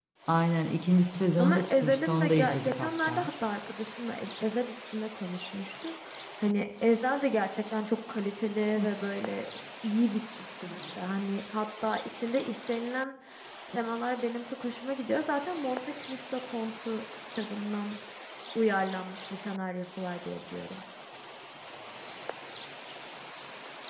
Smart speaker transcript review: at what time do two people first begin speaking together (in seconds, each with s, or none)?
1.4 s